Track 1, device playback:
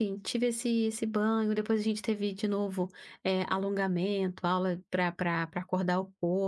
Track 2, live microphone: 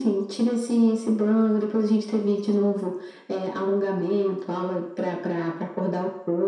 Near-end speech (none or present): none